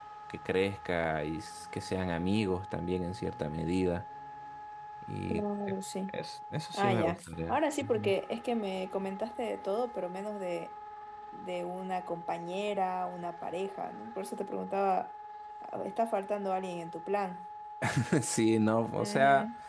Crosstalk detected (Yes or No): Yes